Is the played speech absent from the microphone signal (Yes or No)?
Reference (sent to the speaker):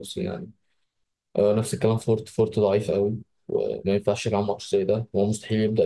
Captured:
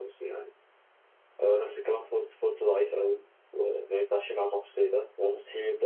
No